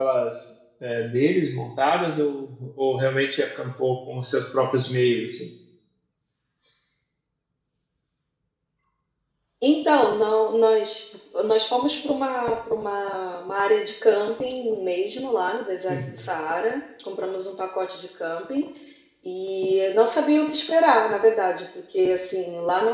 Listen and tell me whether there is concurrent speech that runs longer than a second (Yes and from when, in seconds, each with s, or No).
No